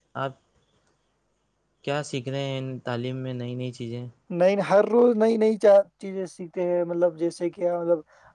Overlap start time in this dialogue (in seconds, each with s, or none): none